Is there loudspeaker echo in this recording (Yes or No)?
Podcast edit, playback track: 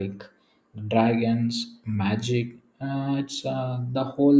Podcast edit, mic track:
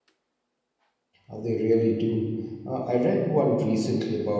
No